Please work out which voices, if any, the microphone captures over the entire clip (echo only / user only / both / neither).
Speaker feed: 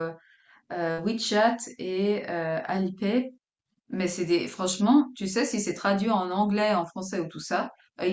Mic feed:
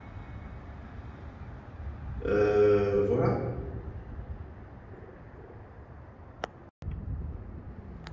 user only